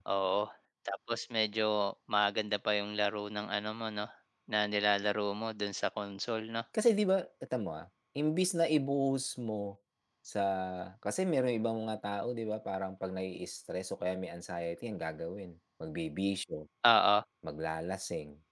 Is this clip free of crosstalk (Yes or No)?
Yes